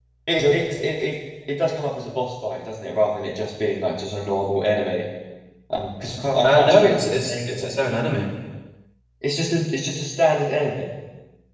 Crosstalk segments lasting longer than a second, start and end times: 6.4-7.7

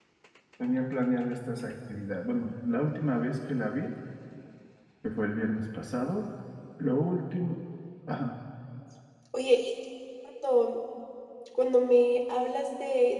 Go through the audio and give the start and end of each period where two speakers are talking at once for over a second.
none

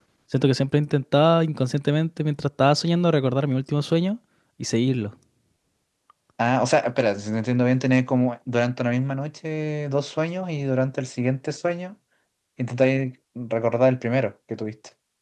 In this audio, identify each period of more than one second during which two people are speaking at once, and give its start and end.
none

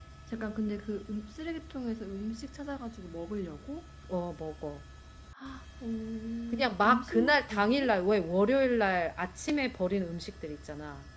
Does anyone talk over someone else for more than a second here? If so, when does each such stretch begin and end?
6.5-7.9

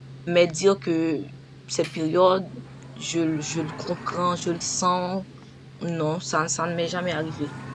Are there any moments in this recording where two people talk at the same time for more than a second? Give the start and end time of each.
none

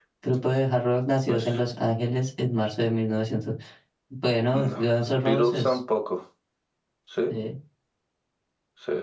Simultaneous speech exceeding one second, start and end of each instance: 4.5-5.8

